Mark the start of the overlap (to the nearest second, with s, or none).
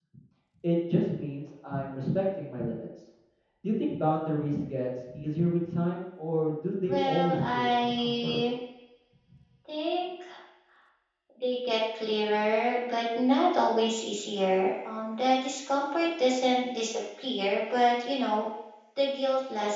7 s